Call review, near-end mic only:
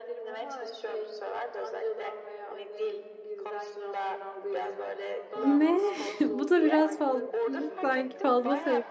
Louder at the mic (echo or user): user